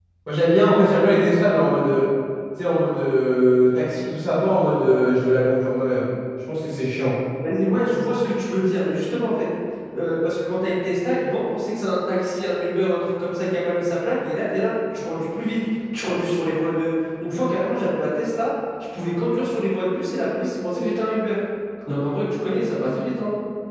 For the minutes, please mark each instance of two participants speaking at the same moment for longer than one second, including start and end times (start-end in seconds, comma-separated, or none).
none